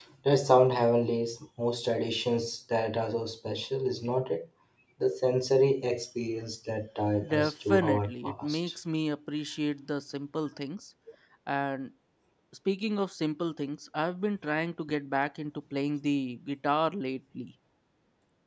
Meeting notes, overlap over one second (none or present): present